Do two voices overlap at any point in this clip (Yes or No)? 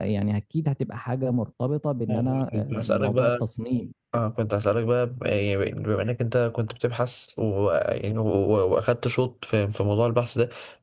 Yes